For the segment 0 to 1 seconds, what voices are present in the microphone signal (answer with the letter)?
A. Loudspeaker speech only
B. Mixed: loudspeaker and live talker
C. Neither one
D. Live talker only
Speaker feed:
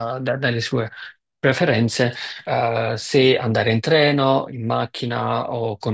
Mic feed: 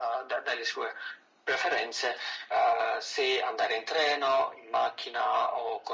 A